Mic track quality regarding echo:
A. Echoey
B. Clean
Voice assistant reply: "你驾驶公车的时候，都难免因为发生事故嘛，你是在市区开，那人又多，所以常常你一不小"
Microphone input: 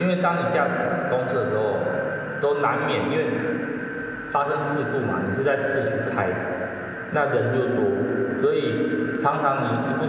A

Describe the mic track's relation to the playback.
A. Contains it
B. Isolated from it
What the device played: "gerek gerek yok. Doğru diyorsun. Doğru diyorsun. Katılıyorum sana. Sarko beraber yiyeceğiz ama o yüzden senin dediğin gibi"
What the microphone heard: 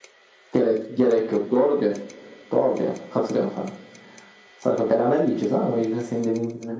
A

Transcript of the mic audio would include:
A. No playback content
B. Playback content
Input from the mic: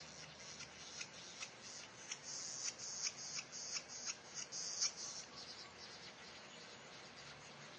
A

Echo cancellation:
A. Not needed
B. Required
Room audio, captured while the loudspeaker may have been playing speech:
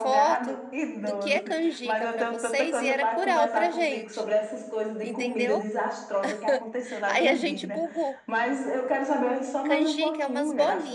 B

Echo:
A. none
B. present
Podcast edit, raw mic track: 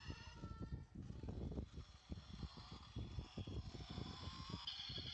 A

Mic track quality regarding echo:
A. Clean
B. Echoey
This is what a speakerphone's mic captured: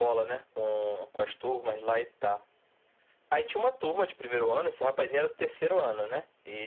B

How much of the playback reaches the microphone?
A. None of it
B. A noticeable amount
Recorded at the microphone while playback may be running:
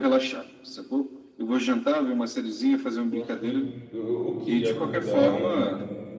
B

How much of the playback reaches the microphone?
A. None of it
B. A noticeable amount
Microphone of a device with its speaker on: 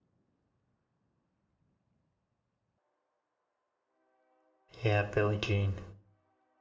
A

